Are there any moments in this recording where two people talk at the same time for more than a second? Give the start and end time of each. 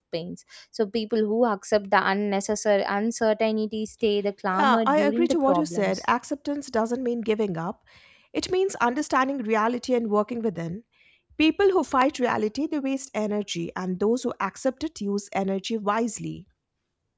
4.5-6.0

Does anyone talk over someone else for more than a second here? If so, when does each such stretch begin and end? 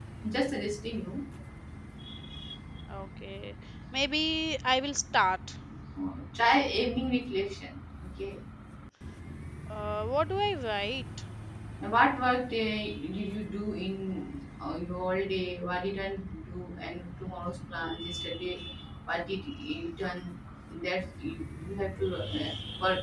none

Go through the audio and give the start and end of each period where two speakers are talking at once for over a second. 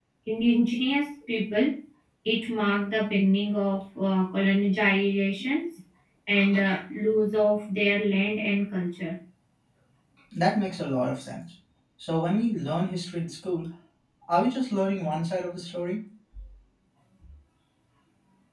none

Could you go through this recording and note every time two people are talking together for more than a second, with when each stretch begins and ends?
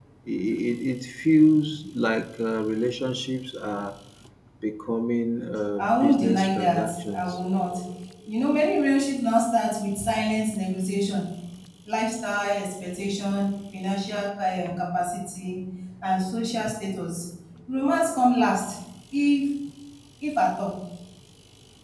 5.8-7.4

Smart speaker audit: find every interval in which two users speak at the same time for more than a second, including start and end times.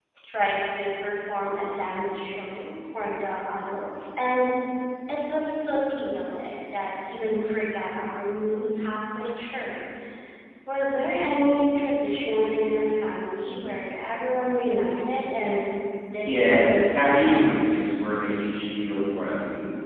16.2-17.5

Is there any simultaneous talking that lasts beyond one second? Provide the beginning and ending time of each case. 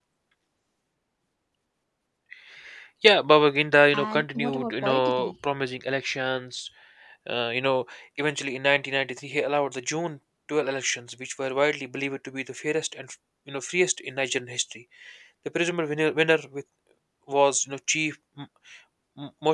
3.9-5.3

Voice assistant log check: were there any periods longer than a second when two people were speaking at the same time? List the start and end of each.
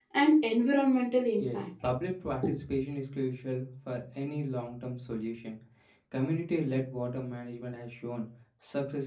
none

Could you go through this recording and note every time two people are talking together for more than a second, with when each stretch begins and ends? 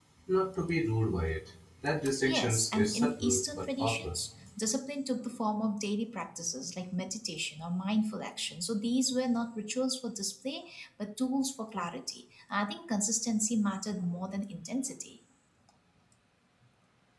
2.3-4.1

